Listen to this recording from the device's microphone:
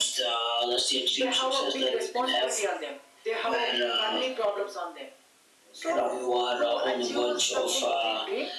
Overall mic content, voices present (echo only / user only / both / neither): echo only